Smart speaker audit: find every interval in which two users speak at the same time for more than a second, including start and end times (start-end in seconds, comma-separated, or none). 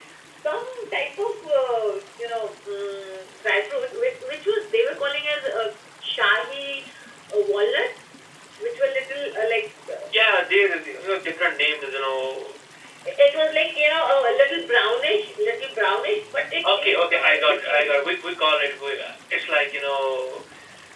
16.7-17.9